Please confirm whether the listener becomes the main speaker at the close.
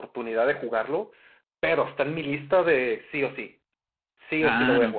Yes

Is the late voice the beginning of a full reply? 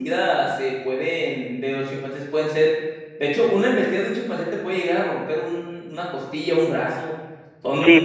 Yes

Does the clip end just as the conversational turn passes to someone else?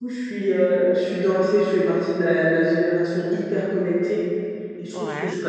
No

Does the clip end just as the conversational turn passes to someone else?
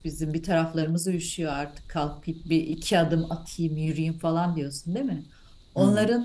No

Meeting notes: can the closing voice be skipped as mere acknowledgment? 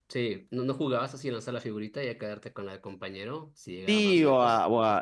No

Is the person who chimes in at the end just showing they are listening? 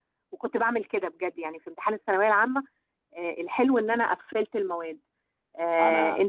Yes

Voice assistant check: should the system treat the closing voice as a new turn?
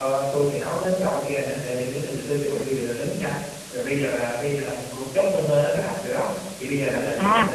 Yes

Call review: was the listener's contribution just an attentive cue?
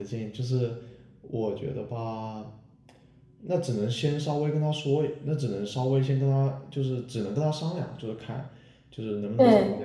Yes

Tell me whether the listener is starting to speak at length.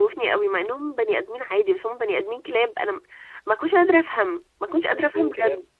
Yes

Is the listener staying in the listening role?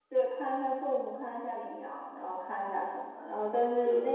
Yes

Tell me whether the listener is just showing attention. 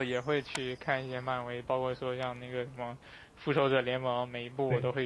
Yes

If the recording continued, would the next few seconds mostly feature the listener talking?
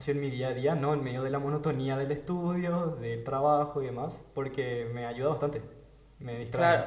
Yes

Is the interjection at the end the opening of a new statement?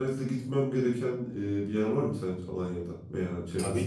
Yes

